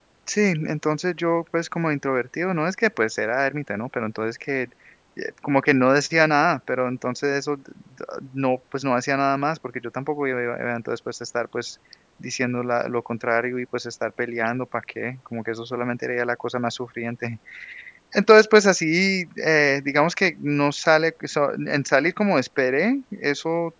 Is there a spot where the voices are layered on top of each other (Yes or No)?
No